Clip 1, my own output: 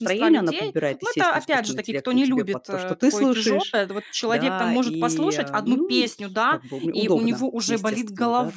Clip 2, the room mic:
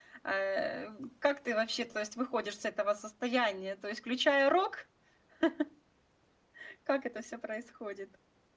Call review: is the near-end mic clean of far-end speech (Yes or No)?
Yes